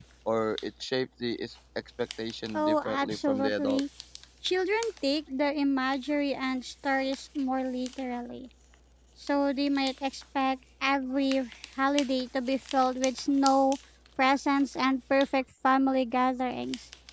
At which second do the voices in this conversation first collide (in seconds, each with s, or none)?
2.5 s